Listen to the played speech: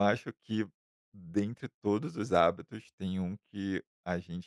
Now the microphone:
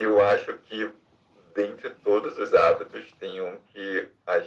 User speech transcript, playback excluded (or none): none